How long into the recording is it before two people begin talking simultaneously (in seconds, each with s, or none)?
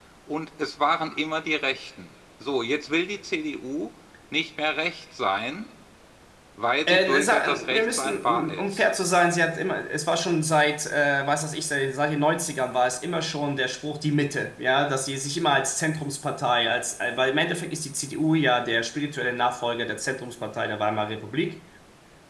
6.9 s